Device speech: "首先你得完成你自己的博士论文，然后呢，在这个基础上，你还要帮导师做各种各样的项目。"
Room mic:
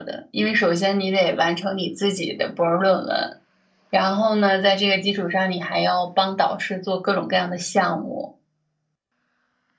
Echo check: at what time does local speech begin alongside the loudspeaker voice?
none

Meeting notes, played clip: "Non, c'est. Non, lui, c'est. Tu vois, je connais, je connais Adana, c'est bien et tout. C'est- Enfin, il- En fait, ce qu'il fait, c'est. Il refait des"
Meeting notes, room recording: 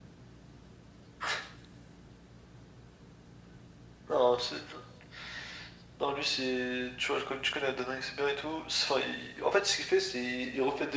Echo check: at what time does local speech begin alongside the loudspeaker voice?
none

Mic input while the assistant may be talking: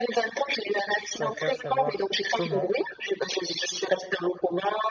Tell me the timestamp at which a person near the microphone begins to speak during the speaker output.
1.0 s

